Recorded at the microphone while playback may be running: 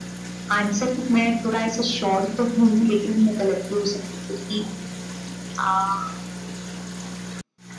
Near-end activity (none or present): none